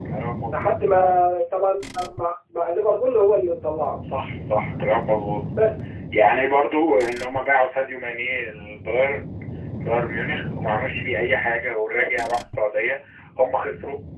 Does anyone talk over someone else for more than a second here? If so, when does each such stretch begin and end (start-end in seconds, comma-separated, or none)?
none